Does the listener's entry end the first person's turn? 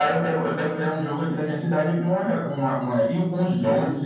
No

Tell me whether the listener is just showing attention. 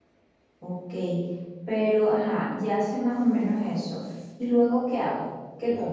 No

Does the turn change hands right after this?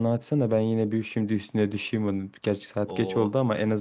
No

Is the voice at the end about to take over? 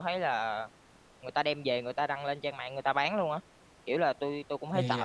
No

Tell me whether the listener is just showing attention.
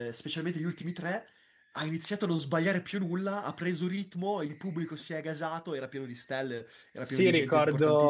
No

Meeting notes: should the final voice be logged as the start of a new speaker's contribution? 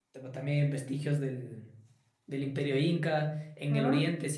No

